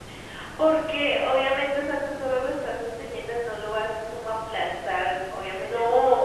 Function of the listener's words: taking over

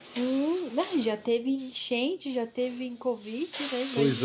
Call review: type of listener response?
taking over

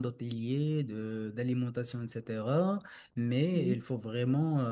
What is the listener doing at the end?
listening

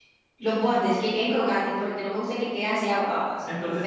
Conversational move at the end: taking over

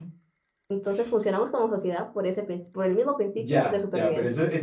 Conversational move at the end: taking over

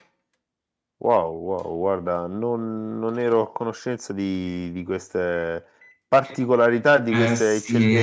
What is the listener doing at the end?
taking over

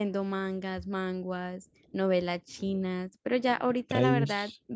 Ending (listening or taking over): listening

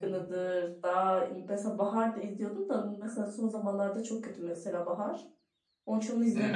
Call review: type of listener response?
taking over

